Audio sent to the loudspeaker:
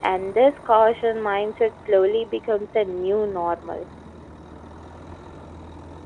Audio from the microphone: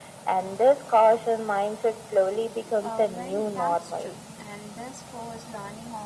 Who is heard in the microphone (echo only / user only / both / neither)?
both